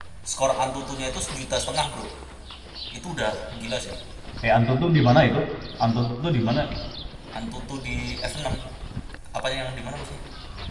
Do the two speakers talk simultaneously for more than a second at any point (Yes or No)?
No